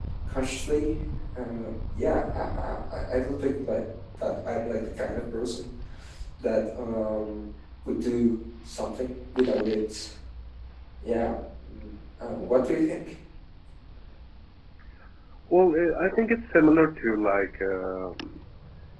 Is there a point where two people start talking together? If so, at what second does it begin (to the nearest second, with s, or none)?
none